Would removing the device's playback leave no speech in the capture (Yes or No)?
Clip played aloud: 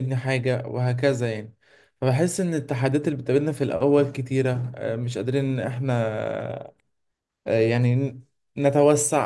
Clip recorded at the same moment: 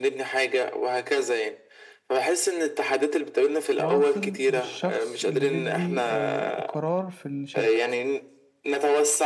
No